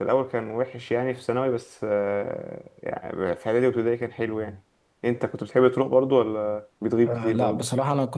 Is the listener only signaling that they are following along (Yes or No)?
No